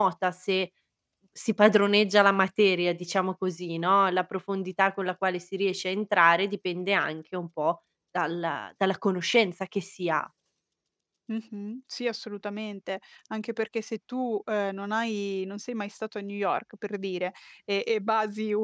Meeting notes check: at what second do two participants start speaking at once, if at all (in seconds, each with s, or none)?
none